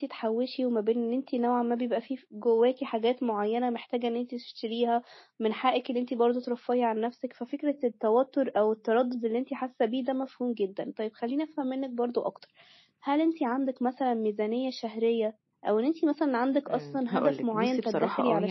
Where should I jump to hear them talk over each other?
16.7 s

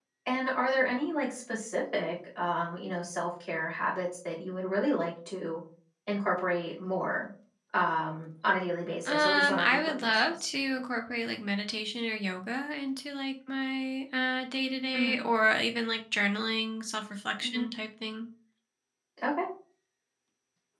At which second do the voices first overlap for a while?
9.1 s

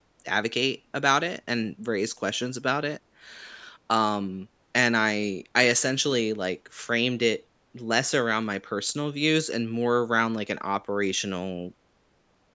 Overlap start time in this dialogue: none

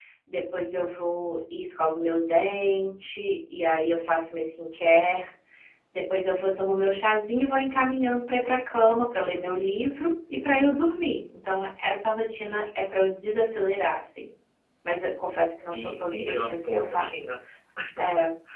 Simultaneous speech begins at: 15.7 s

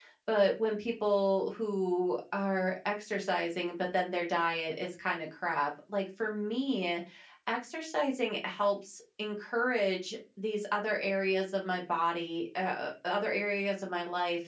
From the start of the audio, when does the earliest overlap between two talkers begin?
none

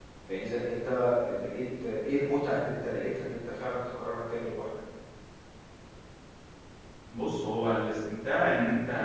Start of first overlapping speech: none

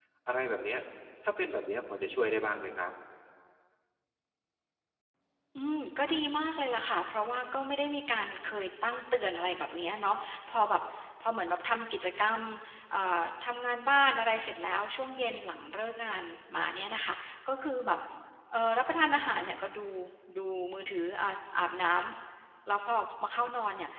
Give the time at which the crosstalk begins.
none

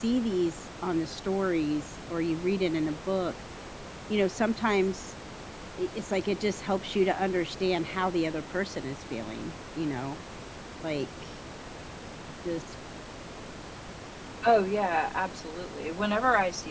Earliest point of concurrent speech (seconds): none

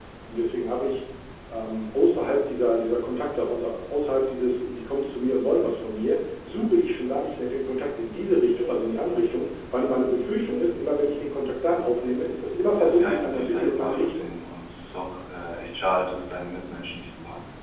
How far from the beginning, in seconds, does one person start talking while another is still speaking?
12.8 s

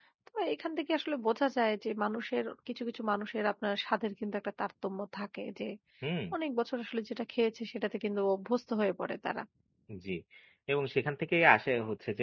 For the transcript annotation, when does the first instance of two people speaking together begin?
none

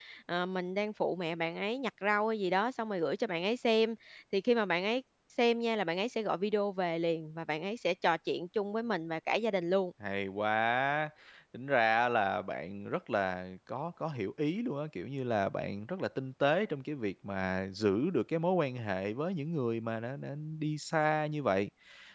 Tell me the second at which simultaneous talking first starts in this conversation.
none

